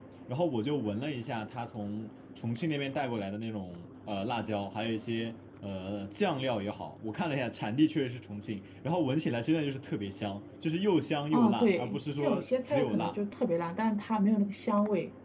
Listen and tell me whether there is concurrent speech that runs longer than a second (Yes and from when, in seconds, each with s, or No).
Yes, from 11.3 s